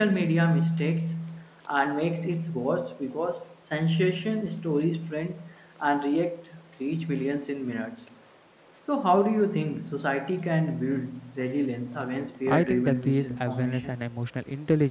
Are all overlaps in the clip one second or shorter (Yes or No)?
No